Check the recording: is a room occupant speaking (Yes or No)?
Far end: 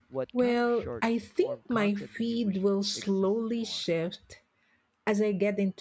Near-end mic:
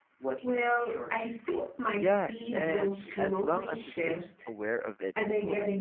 Yes